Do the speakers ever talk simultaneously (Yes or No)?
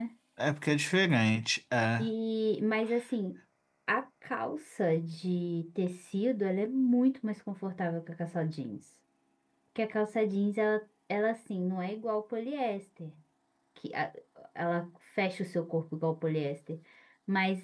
No